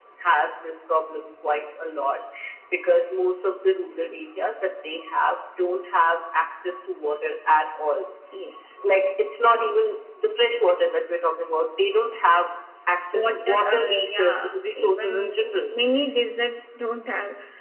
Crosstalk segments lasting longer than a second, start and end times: 13.1-15.3

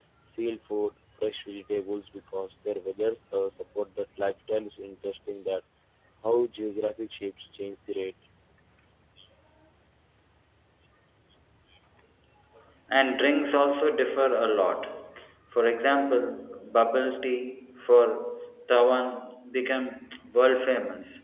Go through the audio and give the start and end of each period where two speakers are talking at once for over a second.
none

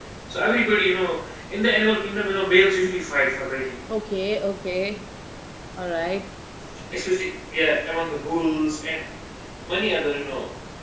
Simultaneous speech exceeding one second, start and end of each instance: none

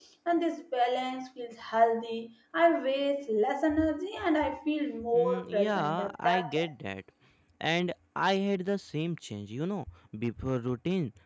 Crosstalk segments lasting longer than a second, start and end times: 5.1-6.7

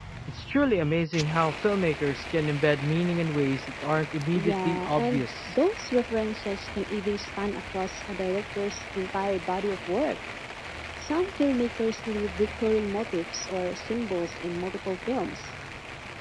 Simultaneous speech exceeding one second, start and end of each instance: 4.3-5.5

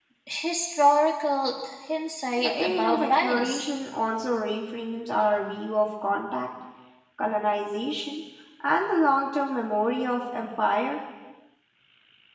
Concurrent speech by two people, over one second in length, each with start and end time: 2.4-3.7

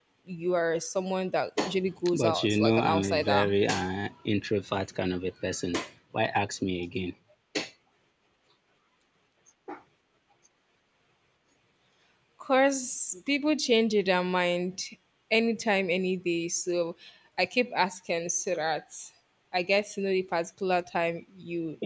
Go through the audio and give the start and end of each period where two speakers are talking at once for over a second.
2.1-3.5

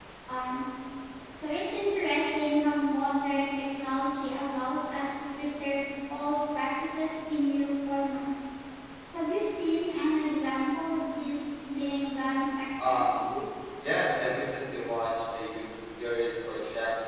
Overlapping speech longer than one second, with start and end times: none

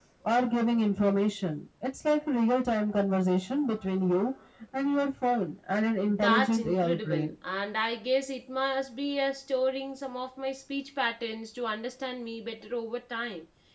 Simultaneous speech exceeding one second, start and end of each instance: 6.0-7.3

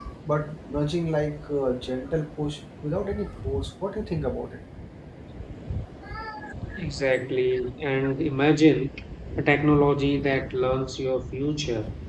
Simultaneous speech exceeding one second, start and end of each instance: none

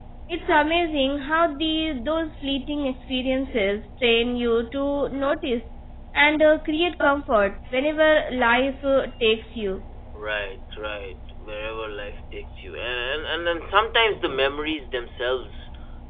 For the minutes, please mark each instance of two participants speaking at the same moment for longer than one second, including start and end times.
none

